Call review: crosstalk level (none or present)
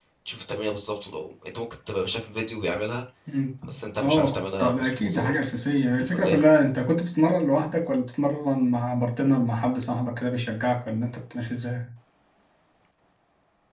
present